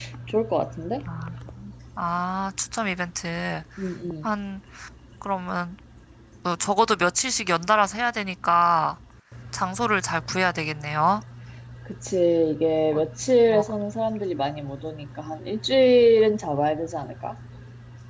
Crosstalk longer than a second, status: none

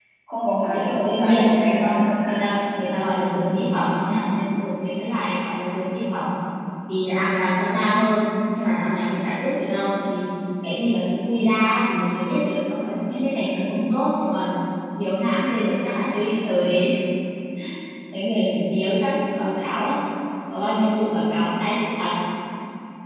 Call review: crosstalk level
present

